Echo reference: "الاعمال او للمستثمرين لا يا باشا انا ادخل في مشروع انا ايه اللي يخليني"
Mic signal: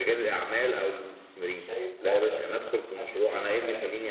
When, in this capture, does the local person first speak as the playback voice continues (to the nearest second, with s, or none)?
2 s